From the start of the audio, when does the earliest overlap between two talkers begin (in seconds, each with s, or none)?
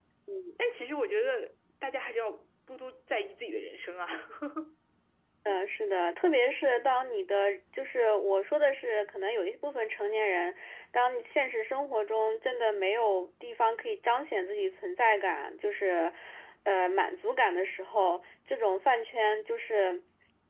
none